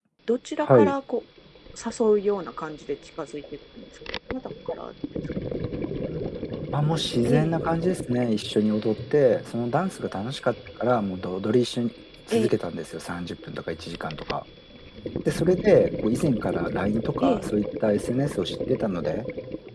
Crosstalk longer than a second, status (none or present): none